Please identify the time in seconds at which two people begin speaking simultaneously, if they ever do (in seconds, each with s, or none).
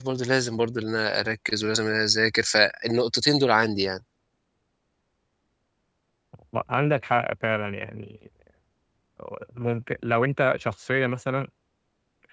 none